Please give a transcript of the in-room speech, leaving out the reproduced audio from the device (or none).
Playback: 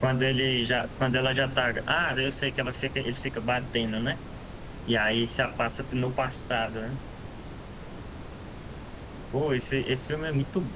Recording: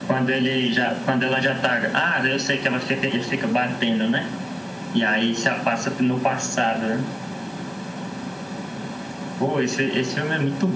none